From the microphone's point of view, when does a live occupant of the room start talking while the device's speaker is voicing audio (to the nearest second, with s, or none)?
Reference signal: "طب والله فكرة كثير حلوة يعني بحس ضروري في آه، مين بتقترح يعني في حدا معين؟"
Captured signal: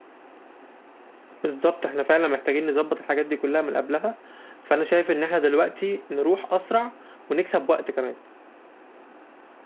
1 s